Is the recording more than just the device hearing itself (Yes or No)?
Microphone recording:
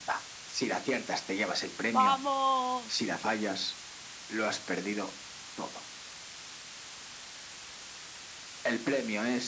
Yes